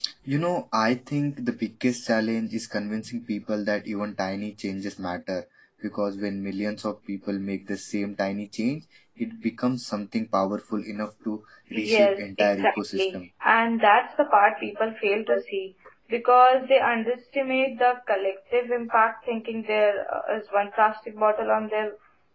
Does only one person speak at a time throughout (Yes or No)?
No